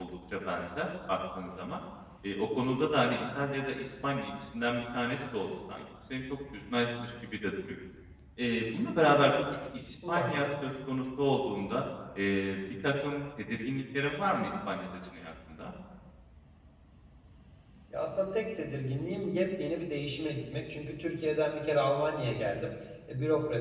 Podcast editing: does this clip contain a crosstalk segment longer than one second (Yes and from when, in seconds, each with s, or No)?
No